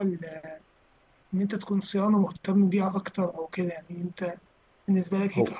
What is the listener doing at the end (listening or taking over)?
listening